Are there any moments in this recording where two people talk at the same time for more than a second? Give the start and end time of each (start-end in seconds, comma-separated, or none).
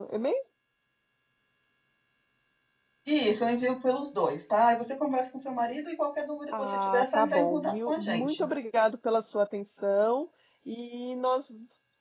6.6-8.5